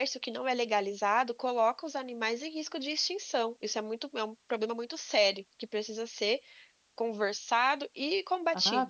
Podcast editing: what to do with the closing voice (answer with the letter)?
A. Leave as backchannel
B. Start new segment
B